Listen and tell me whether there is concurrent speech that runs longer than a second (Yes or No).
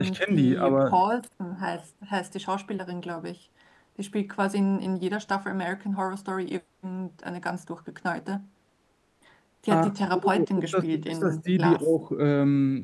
Yes